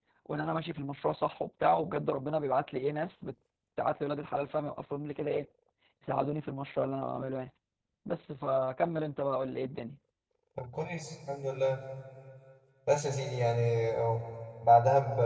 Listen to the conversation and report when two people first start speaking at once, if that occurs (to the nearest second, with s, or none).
none